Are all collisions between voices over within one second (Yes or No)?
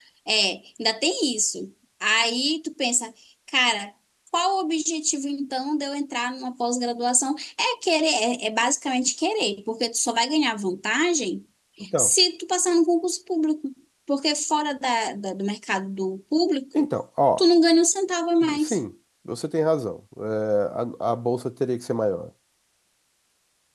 Yes